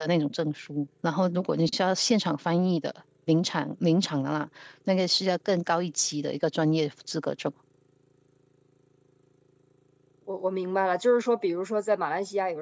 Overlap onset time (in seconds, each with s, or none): none